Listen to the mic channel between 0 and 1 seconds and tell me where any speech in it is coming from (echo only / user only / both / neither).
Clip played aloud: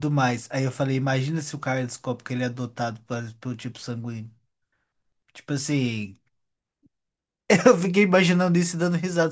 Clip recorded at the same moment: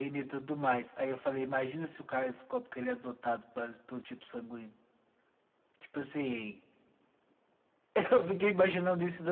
echo only